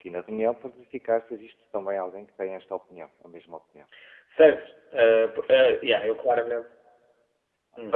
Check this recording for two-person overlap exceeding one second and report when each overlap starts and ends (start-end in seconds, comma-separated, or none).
none